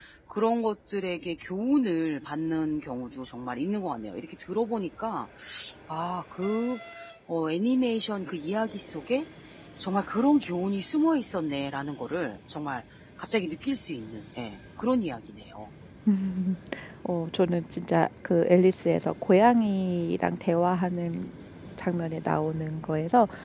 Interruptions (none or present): none